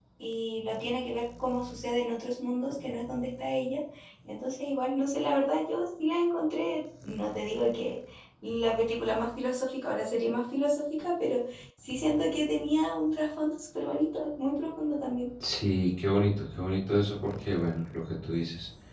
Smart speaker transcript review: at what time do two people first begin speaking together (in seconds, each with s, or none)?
none